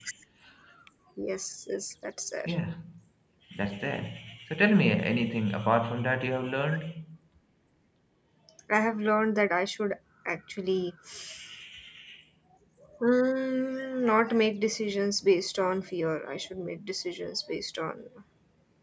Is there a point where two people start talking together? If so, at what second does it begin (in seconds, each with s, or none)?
none